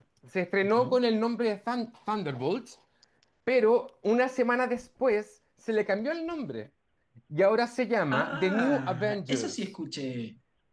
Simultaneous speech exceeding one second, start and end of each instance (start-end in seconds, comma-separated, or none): 8.1-9.5